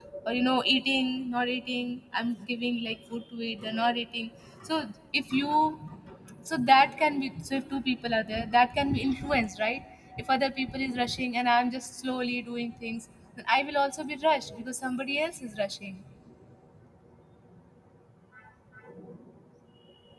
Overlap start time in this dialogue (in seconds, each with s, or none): none